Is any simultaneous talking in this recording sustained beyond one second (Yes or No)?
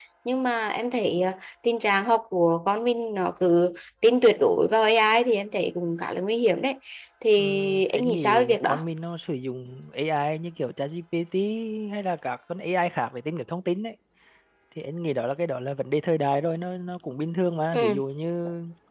Yes